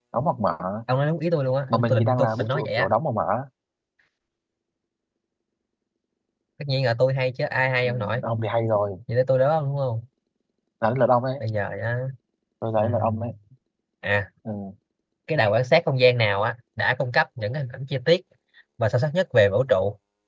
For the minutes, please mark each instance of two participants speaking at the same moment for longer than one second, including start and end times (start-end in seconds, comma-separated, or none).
1.7-2.9